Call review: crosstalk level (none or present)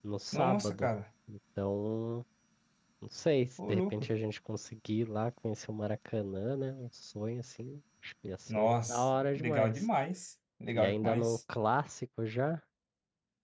present